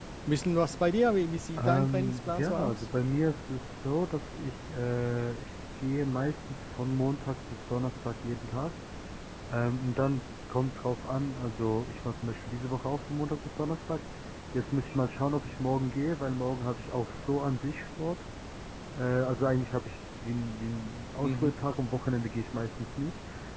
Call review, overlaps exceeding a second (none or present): present